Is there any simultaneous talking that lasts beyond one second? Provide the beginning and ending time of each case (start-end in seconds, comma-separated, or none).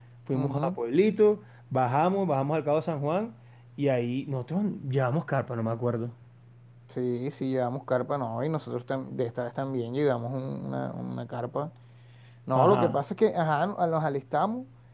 none